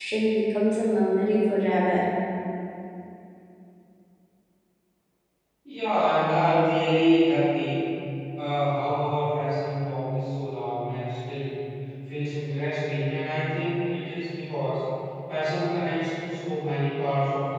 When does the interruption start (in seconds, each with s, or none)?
none